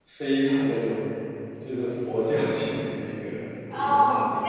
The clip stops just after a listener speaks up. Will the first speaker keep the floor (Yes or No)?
No